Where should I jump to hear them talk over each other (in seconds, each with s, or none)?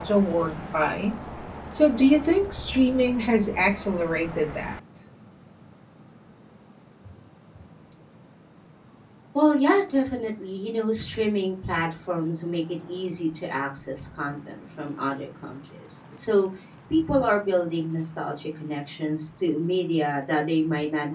none